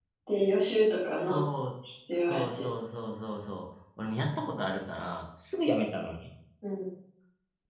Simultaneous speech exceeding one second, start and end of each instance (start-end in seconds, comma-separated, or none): none